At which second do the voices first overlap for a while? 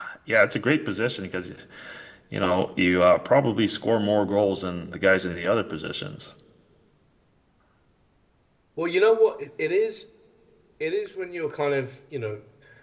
none

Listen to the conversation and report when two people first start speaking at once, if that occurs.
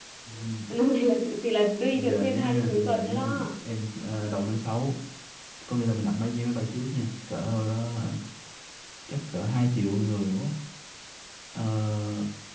1.9 s

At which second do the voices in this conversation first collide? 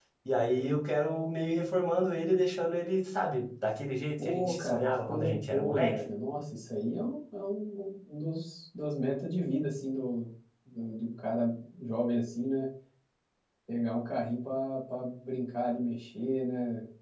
4.2 s

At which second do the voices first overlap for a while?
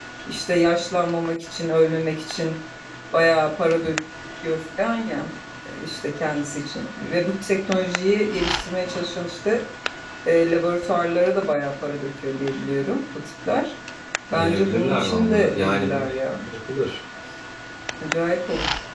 14.3 s

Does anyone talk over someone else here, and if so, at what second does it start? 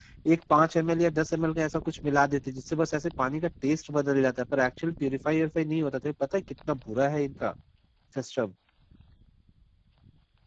none

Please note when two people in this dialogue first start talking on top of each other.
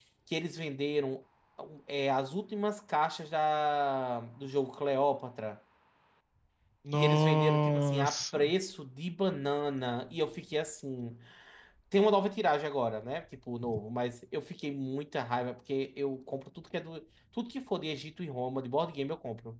6.9 s

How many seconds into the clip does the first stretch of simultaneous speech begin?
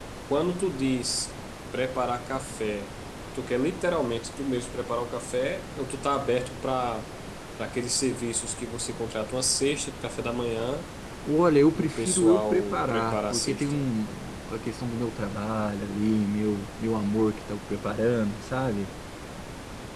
11.7 s

